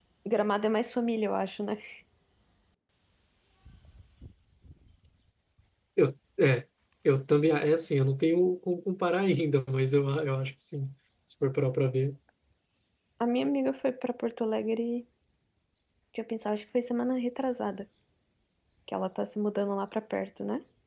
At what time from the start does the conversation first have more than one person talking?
none

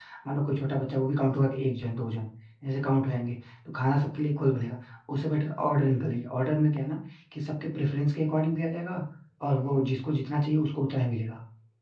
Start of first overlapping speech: none

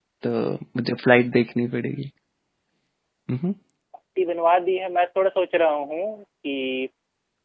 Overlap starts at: none

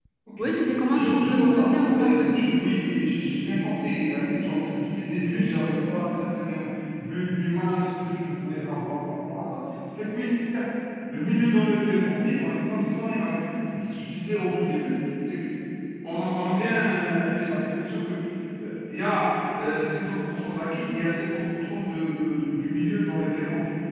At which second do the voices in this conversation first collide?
0.9 s

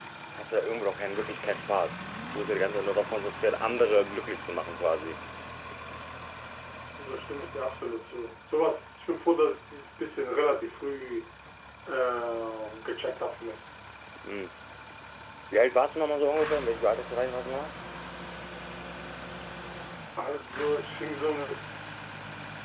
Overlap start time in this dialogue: none

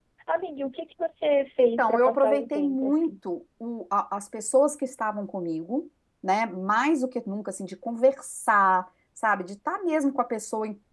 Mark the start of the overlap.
1.6 s

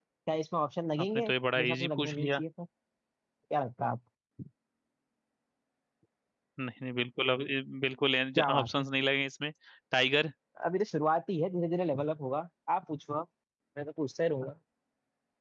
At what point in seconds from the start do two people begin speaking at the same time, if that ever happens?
1.0 s

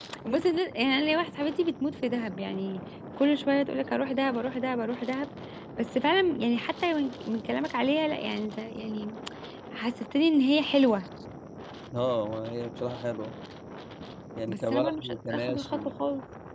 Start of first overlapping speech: 14.5 s

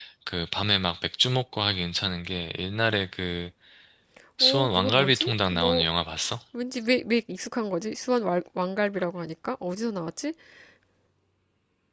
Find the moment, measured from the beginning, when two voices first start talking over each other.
4.4 s

